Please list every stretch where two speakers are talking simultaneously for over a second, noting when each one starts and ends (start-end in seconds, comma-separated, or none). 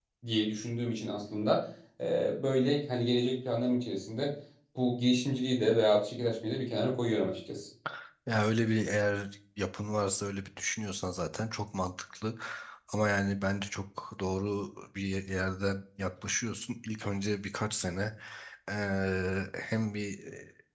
none